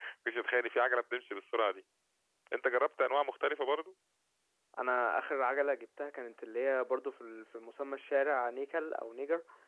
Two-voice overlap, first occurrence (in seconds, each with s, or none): none